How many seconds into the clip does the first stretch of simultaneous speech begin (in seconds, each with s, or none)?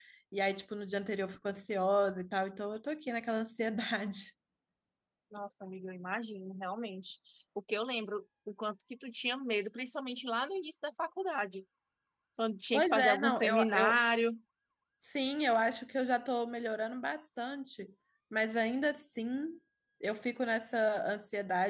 12.7 s